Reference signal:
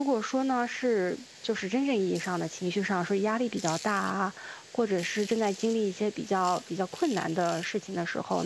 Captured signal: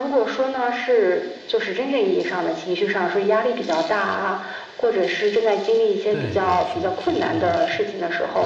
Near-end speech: present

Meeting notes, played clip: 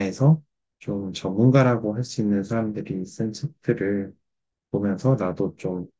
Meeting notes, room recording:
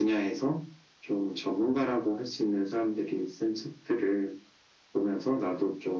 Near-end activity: none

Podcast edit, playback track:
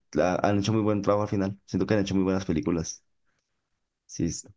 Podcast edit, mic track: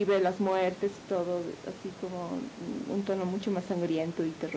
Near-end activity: present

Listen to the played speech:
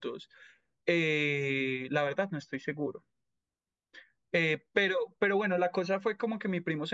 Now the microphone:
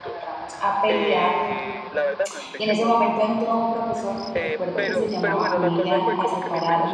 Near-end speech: present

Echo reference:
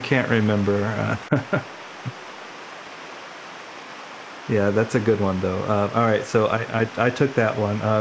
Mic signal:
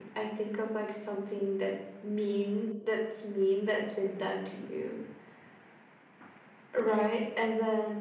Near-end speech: present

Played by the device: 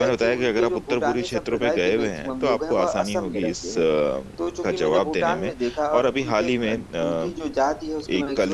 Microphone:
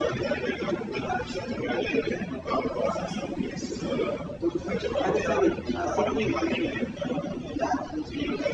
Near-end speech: present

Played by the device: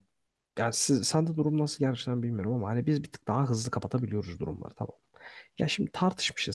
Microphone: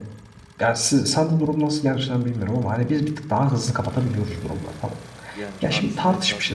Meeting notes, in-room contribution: present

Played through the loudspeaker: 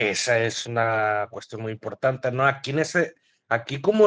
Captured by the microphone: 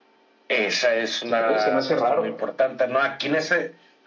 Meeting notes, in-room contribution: present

